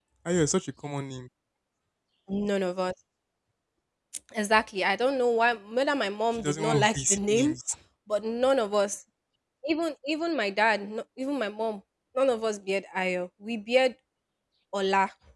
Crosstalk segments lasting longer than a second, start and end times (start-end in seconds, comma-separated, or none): 6.3-7.5